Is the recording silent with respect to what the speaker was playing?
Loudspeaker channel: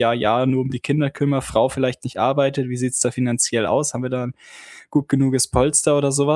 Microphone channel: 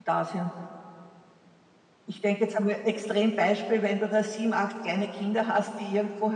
Yes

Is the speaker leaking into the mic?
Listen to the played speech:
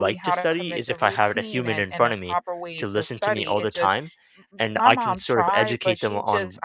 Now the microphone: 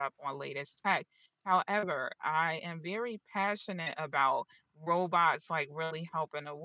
No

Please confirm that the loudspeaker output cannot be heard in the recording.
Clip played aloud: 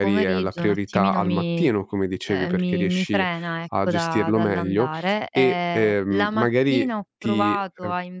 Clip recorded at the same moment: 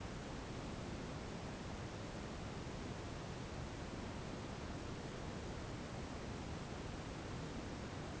Yes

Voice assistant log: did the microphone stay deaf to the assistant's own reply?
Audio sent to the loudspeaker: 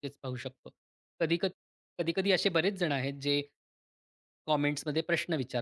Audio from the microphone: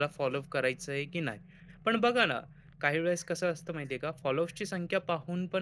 Yes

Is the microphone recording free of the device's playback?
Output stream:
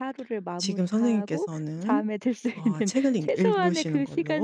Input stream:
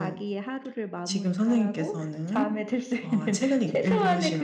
No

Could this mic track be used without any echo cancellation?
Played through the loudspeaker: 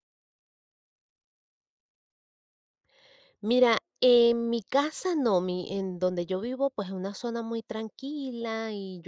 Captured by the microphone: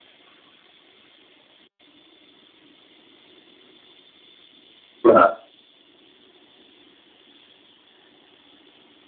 Yes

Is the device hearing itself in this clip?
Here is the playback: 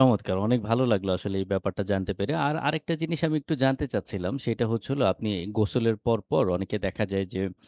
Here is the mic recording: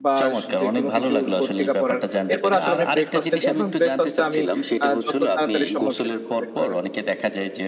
Yes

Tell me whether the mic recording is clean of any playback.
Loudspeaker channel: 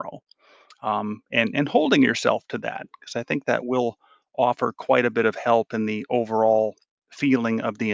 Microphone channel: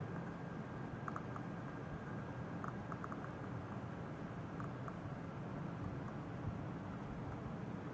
Yes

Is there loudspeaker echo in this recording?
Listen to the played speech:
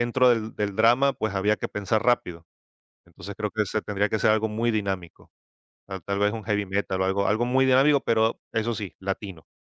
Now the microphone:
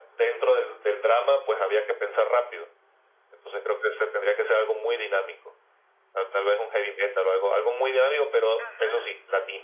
Yes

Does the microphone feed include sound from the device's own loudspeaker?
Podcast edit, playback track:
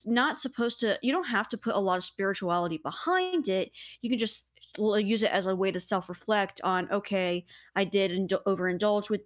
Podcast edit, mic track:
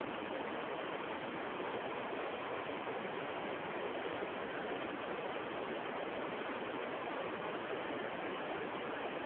No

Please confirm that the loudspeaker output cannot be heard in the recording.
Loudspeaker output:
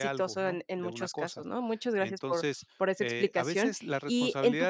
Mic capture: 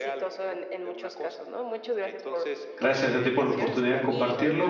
No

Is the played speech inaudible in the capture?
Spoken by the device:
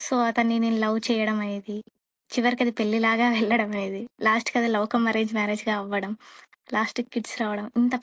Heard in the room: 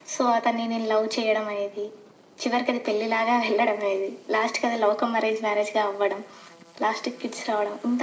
No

